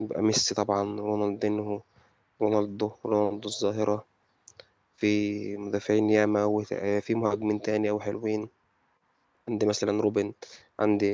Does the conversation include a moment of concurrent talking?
No

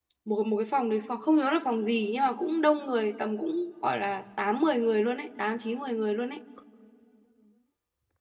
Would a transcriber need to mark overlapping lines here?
No

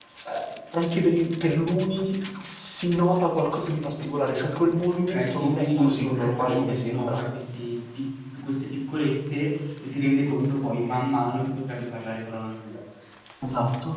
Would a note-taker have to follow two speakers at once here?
Yes, from 4.9 s

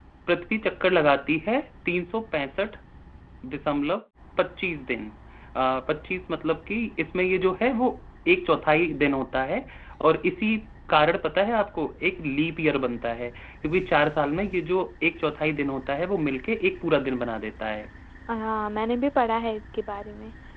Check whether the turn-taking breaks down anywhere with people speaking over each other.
No

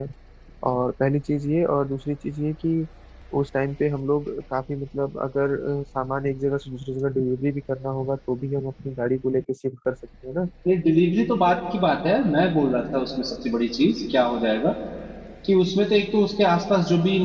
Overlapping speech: No

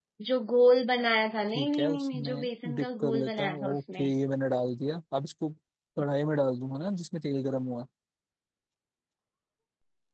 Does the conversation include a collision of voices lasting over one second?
Yes, from 1.5 s

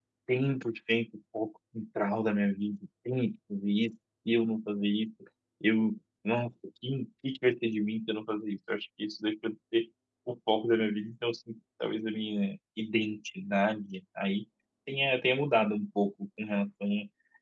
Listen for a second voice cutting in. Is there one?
No

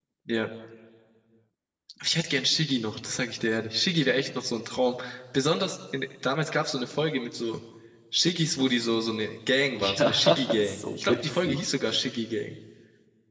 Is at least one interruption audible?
Yes, from 9.8 s

